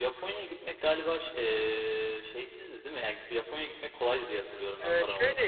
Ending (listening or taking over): taking over